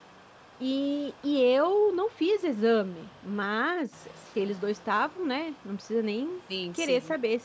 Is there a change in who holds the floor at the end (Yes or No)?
No